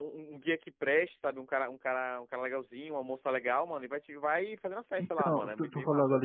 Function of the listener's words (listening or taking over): taking over